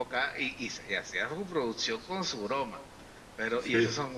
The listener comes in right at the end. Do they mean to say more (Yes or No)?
No